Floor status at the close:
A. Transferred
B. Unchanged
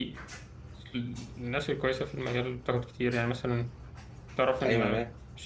B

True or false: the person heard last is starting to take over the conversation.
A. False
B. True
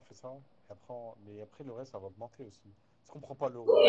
B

